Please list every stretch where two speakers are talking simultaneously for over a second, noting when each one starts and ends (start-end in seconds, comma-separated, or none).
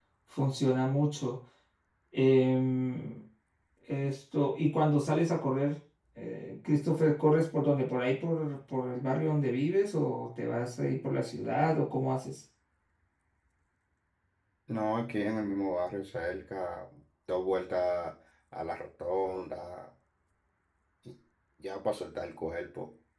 none